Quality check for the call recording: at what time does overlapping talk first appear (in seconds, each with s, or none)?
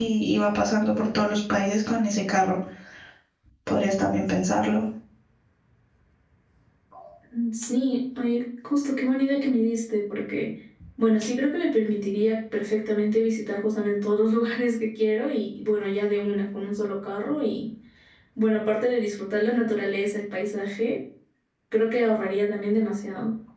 none